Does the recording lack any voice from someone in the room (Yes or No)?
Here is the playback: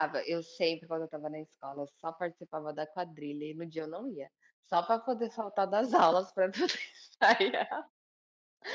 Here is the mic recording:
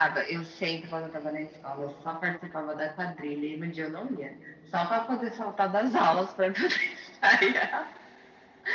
Yes